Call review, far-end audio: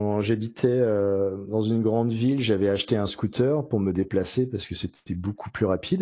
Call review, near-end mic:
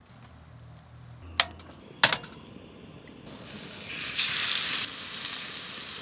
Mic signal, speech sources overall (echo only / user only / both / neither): neither